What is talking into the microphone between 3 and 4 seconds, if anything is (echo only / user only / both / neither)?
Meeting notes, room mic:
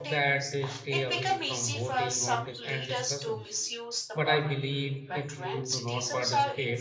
both